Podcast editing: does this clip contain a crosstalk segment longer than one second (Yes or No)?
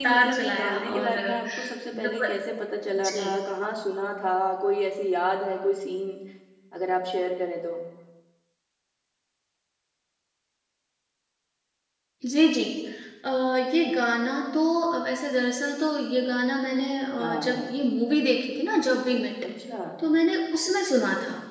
Yes